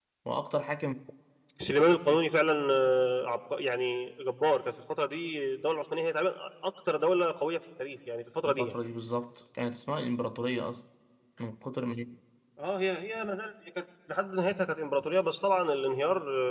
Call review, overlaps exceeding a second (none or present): none